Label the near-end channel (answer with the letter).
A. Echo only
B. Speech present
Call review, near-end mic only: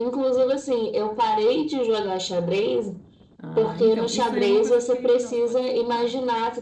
B